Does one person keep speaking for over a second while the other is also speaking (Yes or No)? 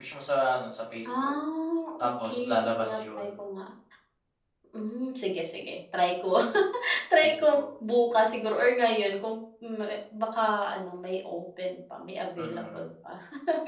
Yes